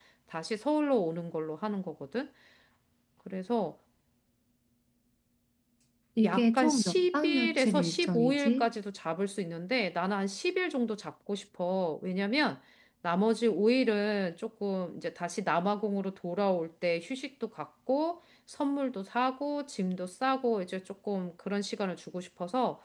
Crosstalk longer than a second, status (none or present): present